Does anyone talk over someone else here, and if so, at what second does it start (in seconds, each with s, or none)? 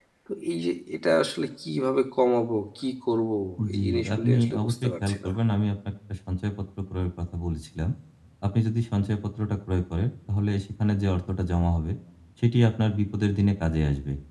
3.6 s